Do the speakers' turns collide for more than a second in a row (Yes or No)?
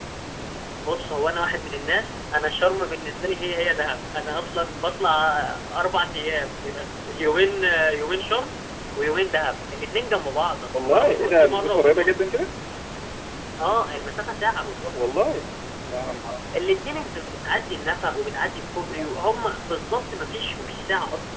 Yes